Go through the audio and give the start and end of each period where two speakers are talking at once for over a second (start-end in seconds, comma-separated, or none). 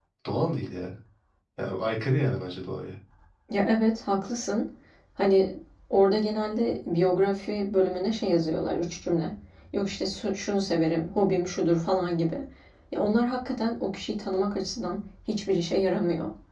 none